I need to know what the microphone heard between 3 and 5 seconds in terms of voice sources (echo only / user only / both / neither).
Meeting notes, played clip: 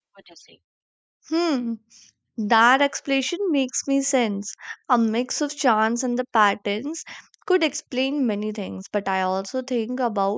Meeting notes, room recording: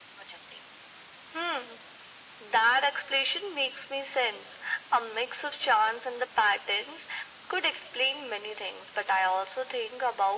echo only